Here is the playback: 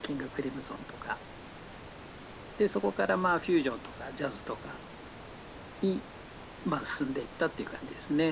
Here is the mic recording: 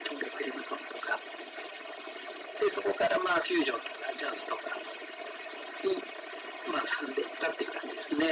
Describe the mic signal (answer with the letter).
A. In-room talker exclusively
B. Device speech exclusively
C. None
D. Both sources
B